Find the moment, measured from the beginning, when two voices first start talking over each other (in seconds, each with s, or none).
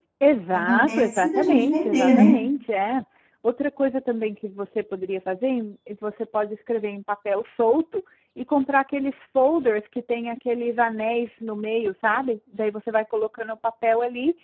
0.7 s